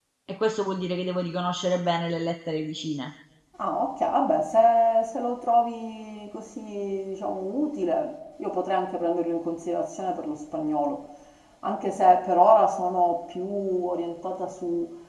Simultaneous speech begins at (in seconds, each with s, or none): none